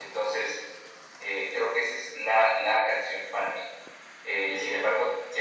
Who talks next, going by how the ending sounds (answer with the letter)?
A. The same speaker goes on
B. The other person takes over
A